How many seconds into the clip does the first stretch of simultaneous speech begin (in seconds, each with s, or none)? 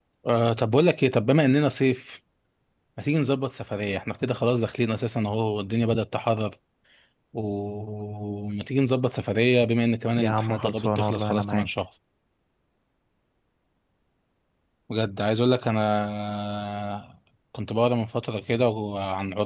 10.2 s